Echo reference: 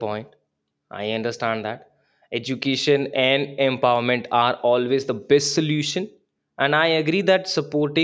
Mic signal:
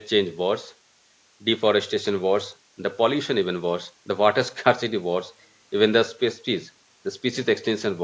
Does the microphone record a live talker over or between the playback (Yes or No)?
Yes